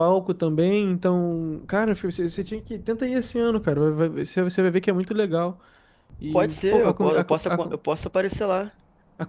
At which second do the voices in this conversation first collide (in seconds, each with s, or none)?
6.3 s